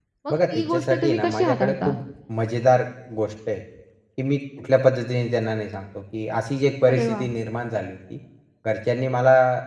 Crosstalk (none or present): present